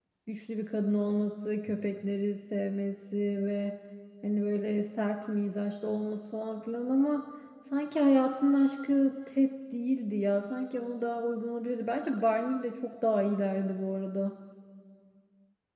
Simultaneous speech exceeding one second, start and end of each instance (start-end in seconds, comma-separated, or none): none